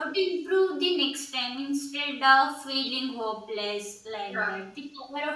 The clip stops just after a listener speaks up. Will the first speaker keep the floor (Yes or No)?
Yes